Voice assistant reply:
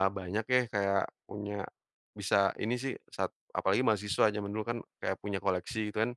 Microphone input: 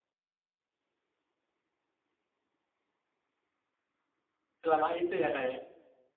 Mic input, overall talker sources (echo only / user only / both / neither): user only